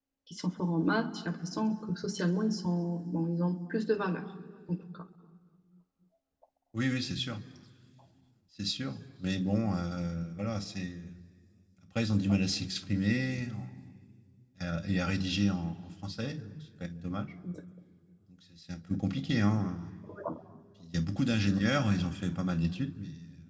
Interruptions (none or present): none